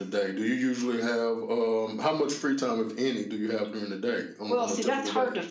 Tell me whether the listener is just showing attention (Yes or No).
No